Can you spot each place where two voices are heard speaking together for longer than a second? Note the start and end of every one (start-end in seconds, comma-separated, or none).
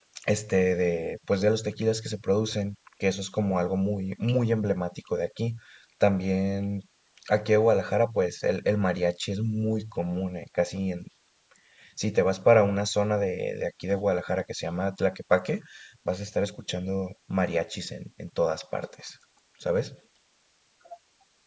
none